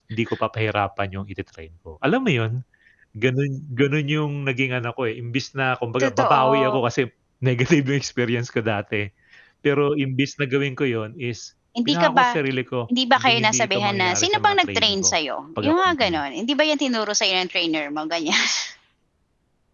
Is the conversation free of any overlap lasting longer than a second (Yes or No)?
No